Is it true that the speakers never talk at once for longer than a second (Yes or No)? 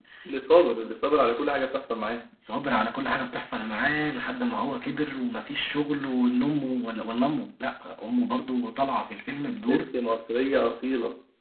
Yes